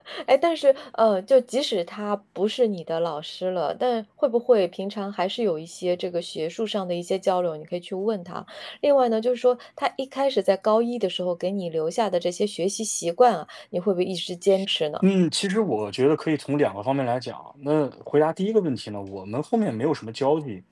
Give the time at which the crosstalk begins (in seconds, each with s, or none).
none